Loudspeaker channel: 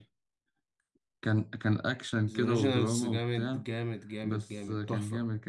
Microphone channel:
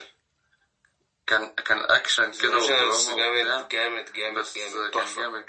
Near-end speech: none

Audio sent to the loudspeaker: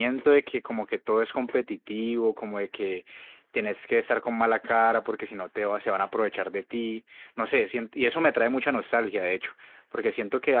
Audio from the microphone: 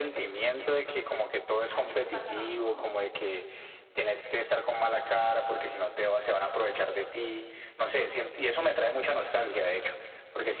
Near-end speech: present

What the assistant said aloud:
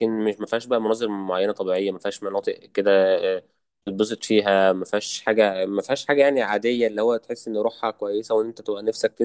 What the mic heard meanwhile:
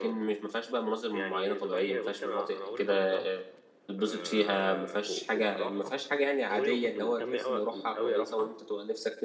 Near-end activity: present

